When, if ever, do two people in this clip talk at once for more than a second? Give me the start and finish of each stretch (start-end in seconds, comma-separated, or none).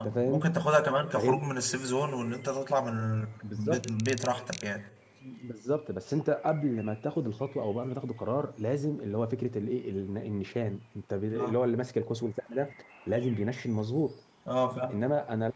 none